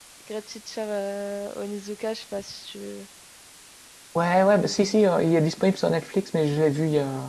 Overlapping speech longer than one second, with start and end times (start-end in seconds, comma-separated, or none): none